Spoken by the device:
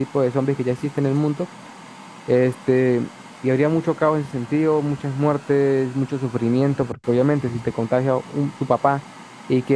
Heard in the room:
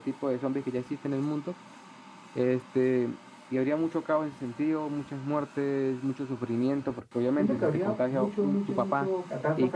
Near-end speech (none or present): present